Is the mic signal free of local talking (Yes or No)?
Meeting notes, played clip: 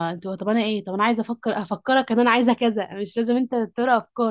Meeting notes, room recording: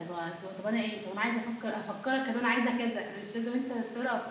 Yes